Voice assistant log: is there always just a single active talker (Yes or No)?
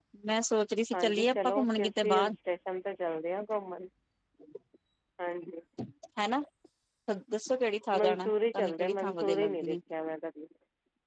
No